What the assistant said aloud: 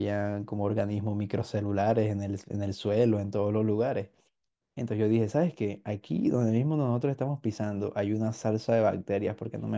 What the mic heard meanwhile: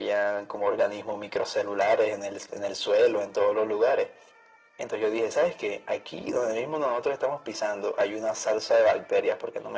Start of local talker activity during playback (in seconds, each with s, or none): none